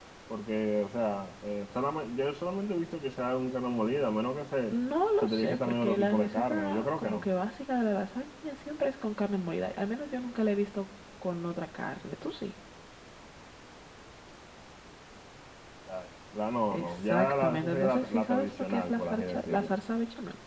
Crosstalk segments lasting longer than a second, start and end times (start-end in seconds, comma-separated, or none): 5.2-7.2, 16.7-19.8